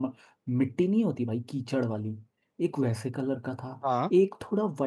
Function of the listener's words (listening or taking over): listening